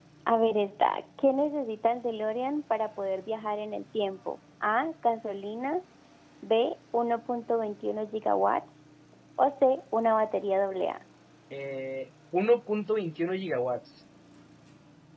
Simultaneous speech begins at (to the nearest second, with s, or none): none